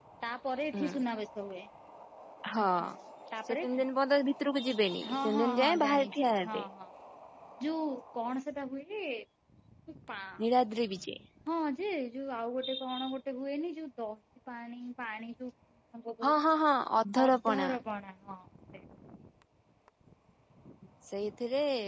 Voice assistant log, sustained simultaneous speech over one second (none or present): present